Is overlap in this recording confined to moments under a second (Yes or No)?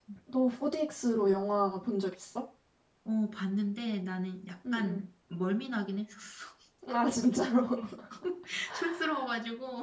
Yes